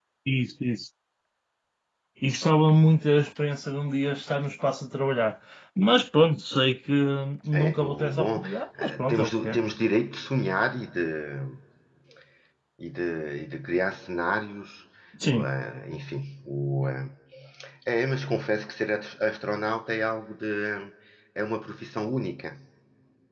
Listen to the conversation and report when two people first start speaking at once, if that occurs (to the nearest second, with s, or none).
8 s